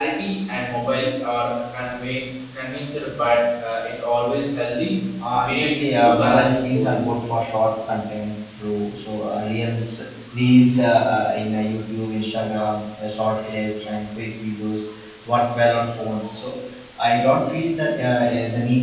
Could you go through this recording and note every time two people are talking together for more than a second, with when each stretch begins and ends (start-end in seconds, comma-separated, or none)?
5.4-6.9